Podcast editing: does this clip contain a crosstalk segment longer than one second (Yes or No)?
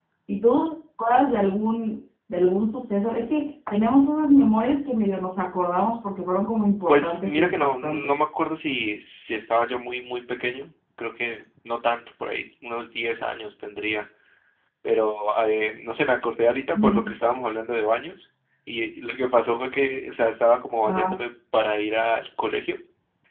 Yes